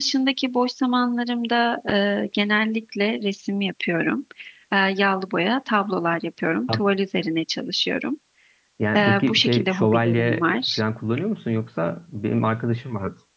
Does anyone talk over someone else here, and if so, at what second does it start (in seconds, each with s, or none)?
8.9 s